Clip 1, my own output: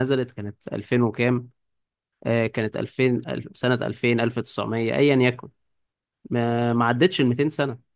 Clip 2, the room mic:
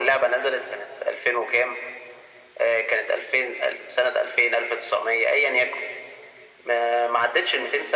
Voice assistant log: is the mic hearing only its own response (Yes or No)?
Yes